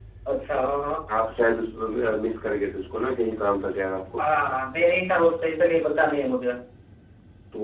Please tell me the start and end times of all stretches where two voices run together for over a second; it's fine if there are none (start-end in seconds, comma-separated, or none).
none